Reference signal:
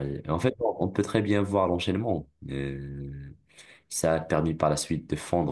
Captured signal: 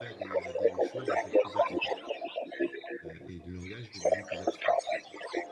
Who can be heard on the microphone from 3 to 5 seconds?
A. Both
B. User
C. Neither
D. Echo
A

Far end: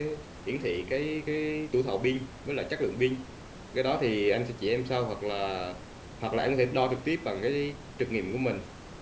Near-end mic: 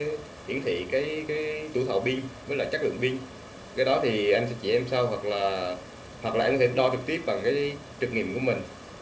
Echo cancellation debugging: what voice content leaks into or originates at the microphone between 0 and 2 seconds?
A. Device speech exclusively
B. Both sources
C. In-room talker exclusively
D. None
A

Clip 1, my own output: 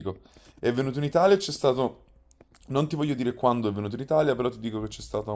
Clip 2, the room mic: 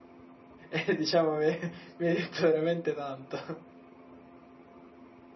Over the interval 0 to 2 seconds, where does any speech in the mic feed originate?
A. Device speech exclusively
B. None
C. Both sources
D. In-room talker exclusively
D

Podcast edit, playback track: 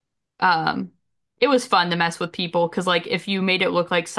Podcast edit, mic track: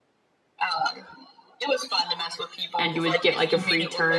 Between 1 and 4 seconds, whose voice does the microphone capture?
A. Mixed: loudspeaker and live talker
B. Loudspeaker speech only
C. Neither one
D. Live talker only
A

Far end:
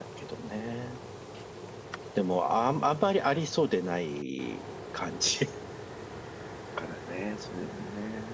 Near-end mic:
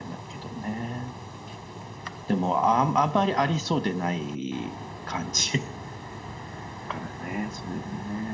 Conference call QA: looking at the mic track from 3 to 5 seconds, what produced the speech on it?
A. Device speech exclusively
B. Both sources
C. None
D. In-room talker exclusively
A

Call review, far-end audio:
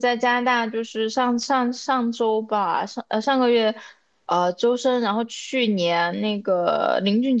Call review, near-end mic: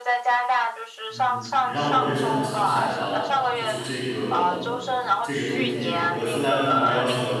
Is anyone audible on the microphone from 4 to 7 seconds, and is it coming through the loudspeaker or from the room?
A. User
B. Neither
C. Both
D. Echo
C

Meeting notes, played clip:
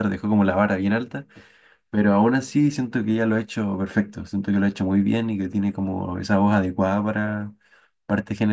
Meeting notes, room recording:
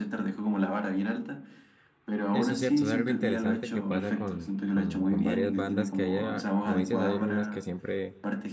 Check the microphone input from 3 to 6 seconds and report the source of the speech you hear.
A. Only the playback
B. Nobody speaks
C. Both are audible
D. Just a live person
C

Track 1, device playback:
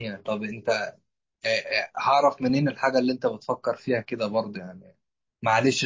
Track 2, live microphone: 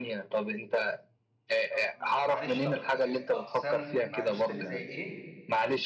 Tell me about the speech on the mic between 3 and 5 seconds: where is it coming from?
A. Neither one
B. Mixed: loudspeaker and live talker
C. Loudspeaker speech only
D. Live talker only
B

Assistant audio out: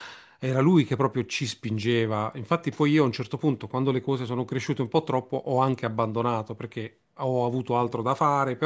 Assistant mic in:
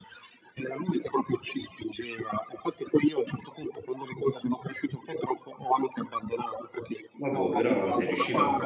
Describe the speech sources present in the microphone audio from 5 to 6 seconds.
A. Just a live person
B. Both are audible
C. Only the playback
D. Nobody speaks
C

